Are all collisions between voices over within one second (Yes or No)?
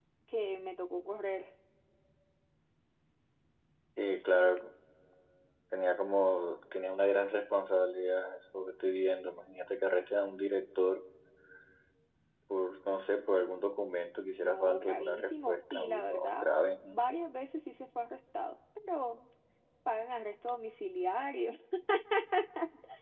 No